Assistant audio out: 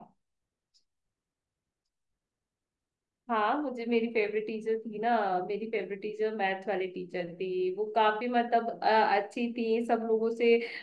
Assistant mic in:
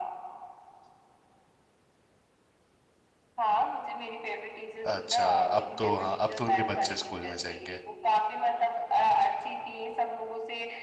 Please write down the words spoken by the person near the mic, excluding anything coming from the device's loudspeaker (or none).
अच्छा अब तो हाँ अब तो उनके बच्चे स्कूल में जाएंगे